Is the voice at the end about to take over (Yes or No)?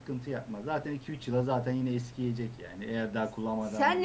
Yes